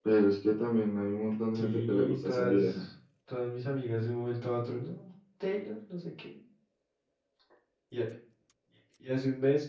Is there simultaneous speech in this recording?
Yes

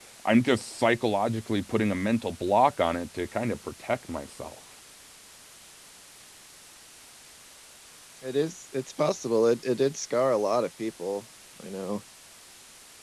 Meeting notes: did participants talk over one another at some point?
No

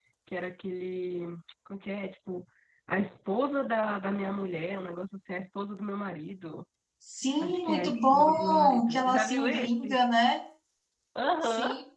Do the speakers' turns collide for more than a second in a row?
Yes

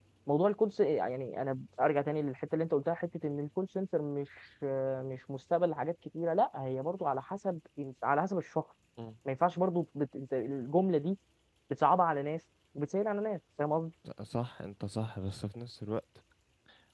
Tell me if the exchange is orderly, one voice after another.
Yes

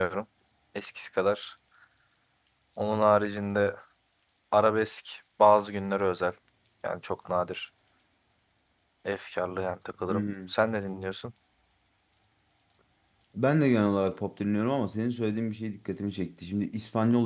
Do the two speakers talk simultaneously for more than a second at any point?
No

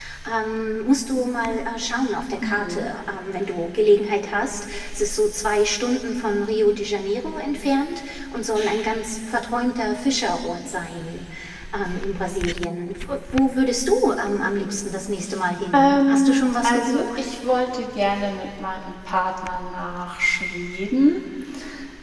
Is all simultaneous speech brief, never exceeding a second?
No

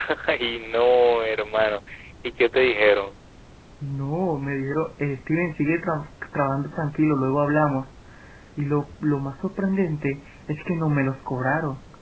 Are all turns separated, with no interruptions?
Yes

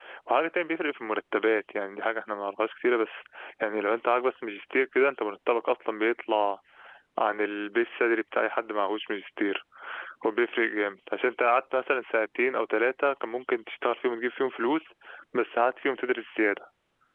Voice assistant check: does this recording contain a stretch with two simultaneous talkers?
No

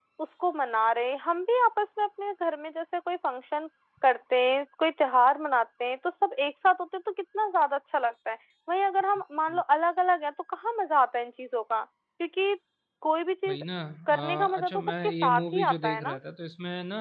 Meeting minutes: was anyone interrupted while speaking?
Yes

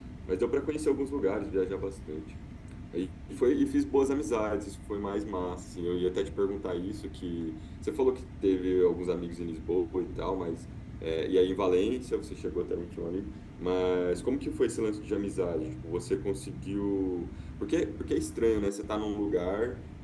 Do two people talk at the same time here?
No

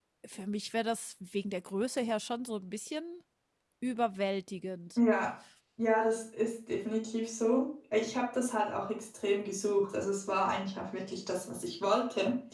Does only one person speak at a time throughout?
Yes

